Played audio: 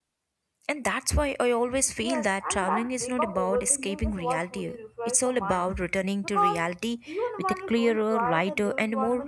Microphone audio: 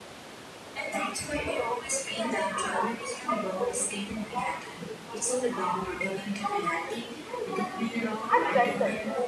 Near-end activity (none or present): present